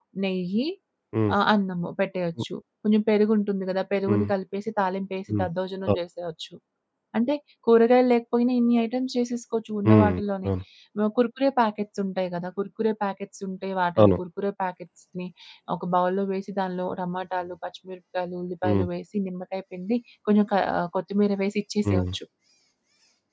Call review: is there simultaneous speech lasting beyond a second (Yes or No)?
No